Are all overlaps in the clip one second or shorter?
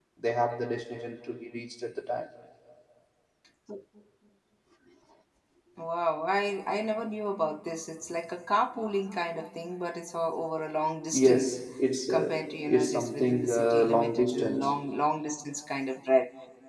No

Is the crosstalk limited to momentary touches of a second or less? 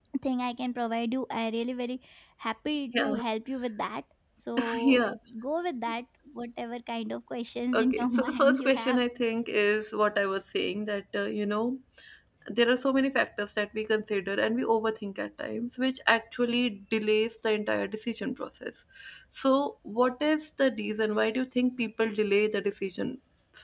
No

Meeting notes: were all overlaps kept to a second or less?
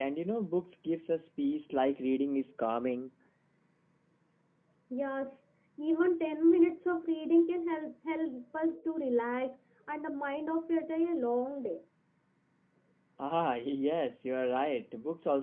Yes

